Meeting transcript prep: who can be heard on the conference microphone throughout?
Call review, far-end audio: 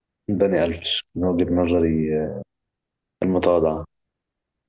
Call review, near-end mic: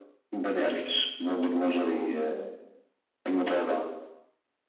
echo only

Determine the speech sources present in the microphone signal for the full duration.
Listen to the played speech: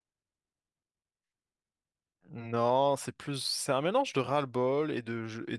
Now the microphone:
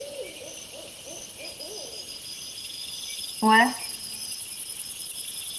user only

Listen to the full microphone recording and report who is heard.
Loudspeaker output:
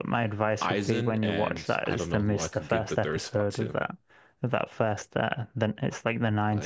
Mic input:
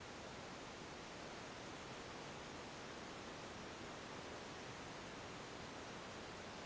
neither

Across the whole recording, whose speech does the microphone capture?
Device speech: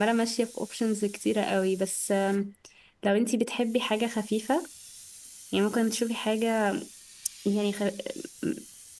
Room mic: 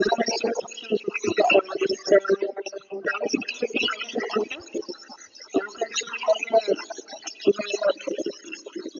echo only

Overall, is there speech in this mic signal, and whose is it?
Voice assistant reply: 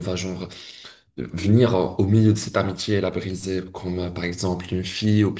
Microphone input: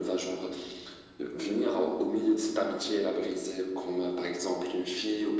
echo only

